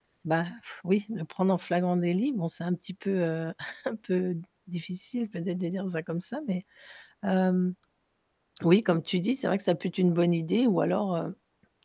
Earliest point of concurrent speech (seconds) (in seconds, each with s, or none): none